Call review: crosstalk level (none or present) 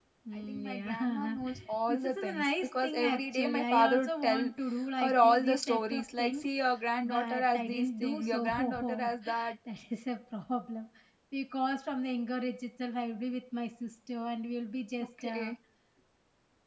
present